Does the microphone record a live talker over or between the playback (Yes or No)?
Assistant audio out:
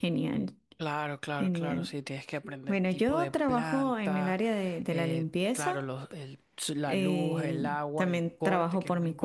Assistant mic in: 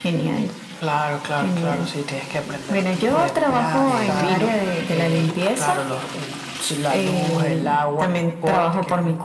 Yes